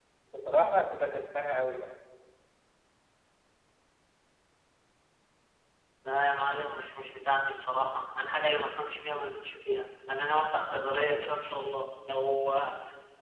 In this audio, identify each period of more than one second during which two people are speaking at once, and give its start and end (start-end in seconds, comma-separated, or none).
none